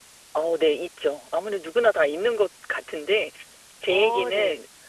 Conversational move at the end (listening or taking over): listening